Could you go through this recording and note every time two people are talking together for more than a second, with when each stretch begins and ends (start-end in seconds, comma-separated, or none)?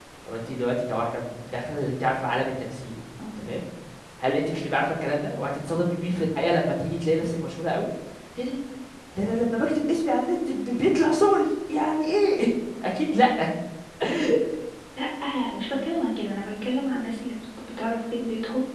none